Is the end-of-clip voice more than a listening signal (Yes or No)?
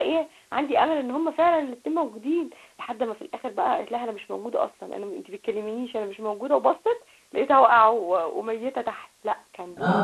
Yes